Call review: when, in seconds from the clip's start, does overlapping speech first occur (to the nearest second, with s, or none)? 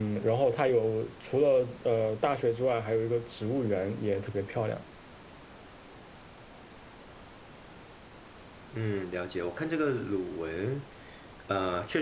none